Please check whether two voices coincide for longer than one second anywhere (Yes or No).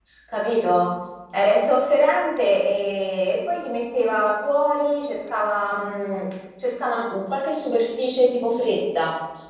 No